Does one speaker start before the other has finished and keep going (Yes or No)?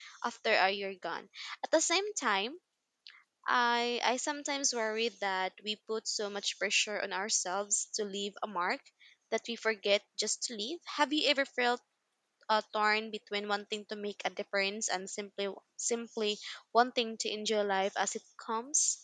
No